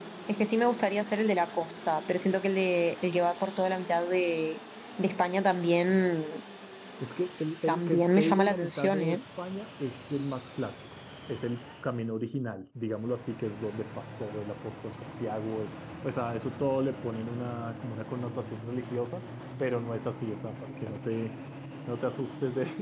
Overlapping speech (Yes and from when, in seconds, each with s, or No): Yes, from 7.7 s